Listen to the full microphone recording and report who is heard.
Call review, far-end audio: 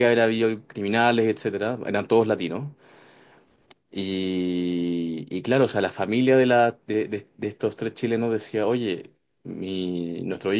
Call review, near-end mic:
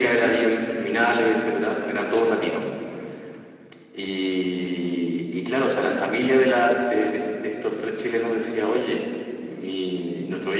echo only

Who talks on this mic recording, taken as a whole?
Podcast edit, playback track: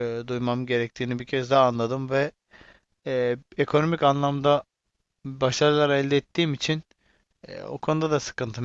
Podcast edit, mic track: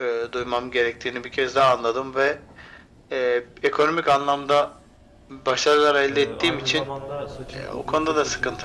both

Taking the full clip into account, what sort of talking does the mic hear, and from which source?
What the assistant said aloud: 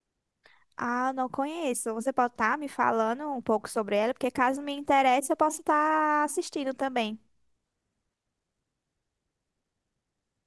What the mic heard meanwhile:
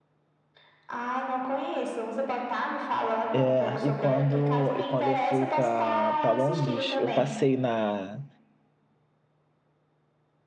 both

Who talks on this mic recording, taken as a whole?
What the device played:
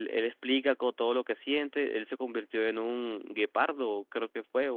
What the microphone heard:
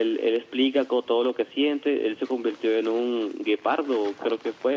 echo only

